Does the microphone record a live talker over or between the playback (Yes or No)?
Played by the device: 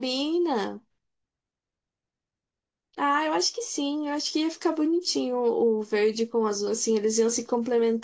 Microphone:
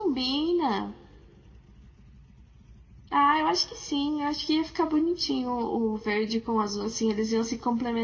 No